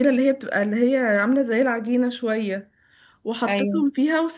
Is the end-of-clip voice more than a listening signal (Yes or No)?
No